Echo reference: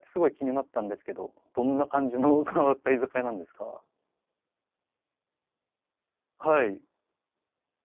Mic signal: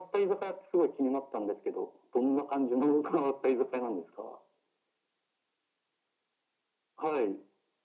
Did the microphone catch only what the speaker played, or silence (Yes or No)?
Yes